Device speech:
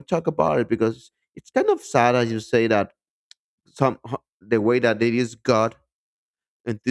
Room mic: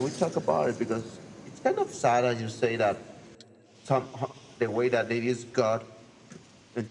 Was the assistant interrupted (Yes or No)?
No